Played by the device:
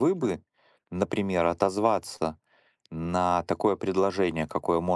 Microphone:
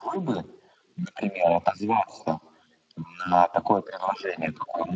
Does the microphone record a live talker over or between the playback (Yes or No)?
No